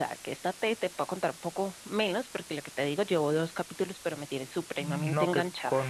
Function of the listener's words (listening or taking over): taking over